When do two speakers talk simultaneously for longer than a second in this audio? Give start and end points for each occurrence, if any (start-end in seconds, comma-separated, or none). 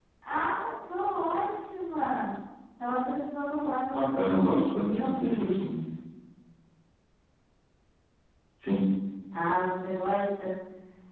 4.0-5.6